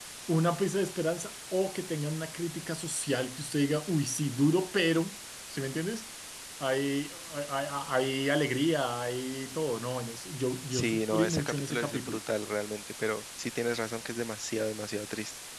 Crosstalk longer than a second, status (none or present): present